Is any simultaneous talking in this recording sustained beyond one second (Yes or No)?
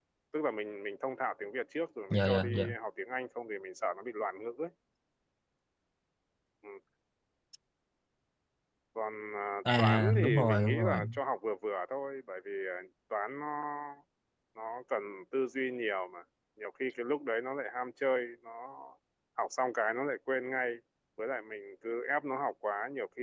Yes